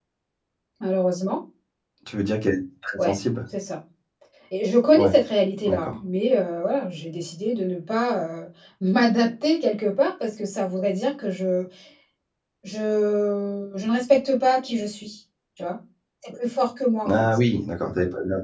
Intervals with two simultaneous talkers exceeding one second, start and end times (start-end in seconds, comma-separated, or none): none